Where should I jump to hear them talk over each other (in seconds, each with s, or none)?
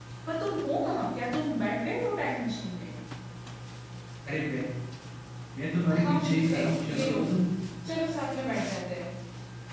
6.0 s